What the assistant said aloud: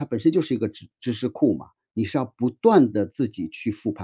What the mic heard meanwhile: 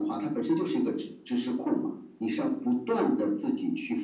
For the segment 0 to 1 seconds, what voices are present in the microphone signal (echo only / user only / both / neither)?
echo only